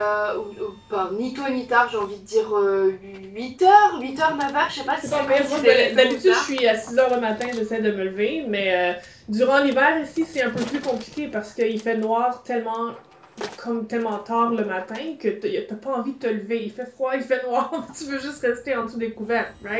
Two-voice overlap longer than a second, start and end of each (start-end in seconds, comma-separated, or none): 5.0-6.5